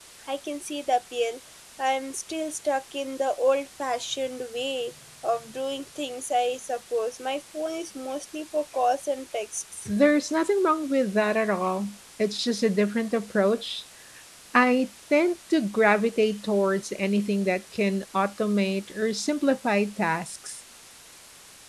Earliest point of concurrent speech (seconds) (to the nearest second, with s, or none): none